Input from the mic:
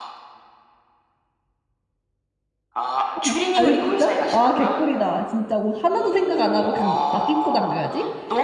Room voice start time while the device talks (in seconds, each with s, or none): 3.1 s